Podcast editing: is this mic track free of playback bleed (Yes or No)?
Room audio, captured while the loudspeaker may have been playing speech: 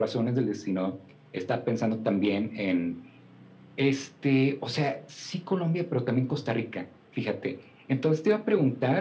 No